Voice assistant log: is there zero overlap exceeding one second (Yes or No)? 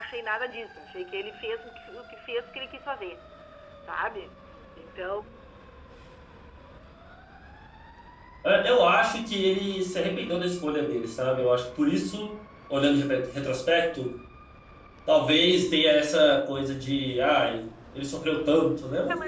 Yes